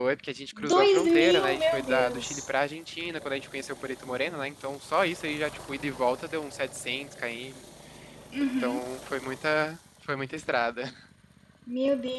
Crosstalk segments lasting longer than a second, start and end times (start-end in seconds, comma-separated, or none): 0.6-2.4